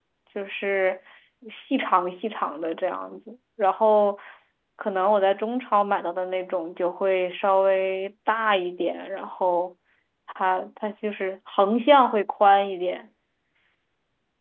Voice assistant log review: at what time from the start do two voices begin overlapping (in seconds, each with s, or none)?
none